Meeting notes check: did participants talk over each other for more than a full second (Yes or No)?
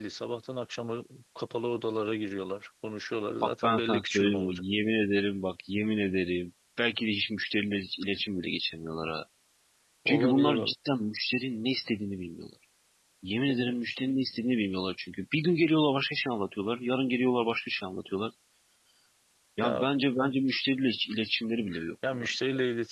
Yes